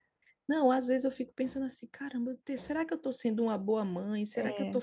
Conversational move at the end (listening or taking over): listening